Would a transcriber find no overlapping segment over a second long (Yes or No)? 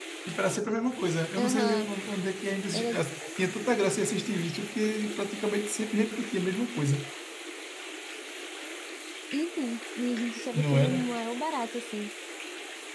Yes